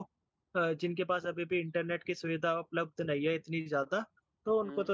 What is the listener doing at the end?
listening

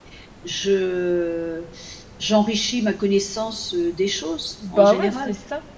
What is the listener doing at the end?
taking over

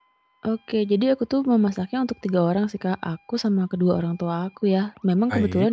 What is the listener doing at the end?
listening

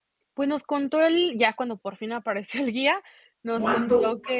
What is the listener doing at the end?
taking over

